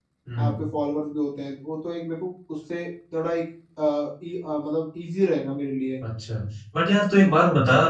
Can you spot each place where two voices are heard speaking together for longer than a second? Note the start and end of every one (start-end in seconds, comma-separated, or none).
none